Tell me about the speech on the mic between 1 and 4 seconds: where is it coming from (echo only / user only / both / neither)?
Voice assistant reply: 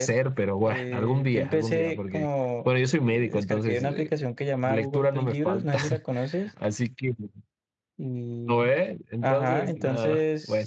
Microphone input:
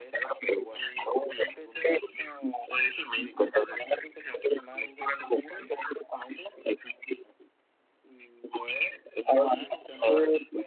echo only